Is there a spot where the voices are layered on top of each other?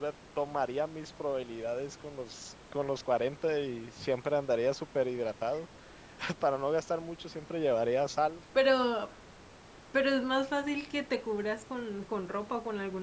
No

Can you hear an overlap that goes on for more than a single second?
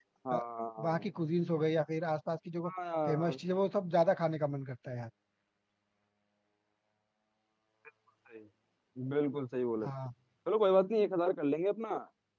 No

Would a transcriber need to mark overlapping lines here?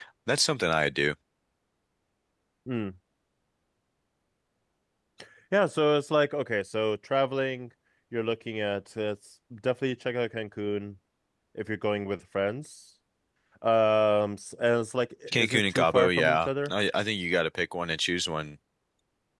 Yes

